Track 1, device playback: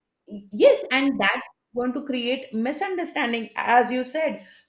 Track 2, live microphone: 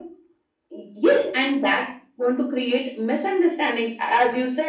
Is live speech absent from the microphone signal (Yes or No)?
Yes